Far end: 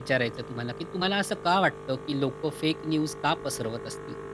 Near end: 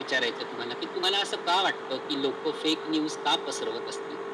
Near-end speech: none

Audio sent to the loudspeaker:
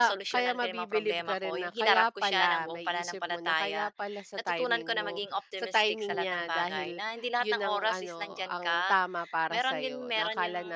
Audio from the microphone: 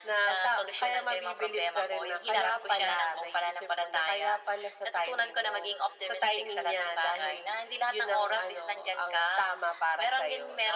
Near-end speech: none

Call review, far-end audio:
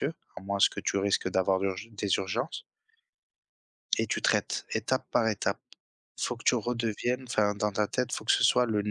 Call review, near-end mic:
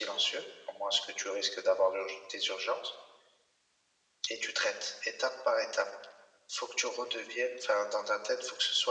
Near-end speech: none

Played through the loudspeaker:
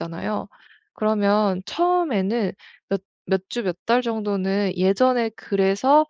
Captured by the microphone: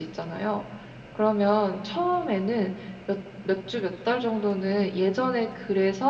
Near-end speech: none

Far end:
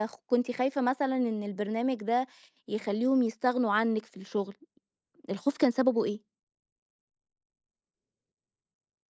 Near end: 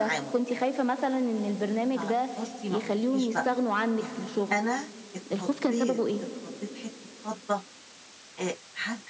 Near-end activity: present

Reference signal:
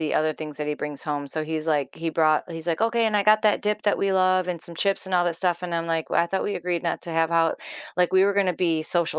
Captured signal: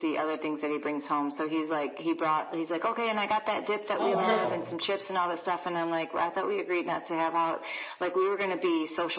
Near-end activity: present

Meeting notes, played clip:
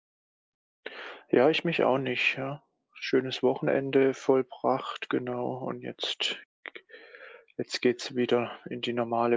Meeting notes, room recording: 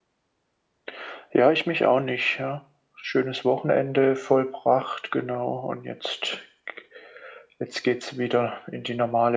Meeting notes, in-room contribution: none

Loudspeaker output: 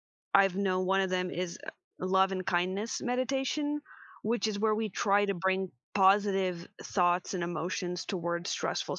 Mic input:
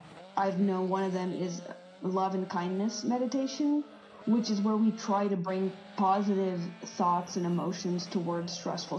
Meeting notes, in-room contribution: none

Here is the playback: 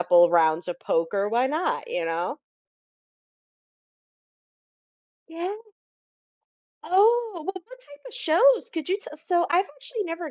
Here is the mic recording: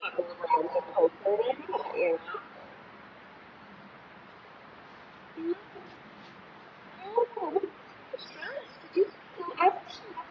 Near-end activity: none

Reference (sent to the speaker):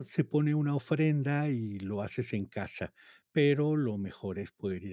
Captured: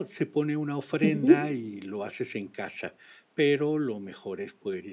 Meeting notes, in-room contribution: present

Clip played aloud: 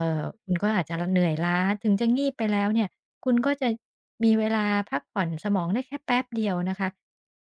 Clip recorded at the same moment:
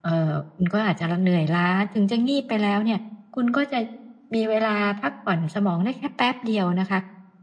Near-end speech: none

